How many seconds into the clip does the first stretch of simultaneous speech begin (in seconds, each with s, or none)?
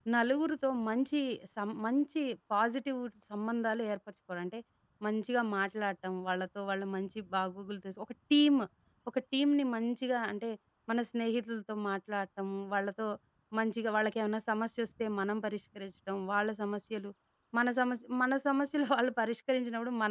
none